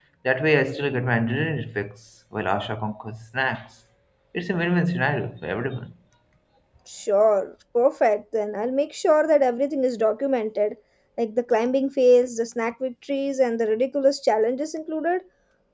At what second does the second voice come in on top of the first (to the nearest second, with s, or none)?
none